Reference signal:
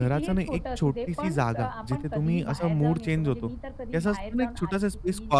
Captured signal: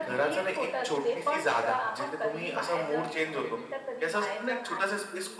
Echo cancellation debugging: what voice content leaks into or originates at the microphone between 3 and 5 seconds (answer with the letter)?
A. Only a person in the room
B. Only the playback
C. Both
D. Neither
B